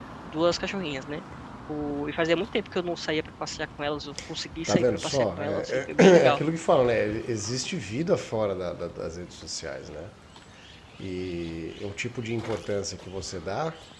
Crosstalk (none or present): present